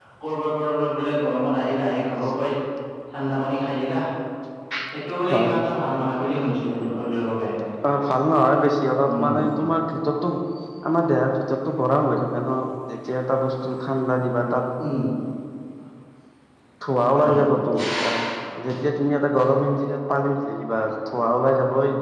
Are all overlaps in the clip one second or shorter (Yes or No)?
Yes